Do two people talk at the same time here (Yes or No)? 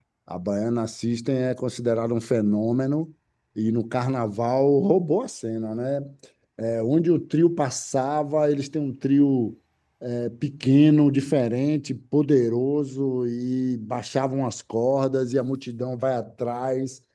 No